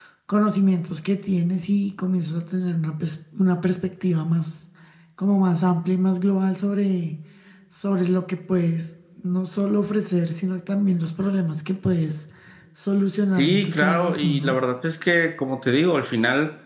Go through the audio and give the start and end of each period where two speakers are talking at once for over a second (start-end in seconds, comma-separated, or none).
13.4-14.6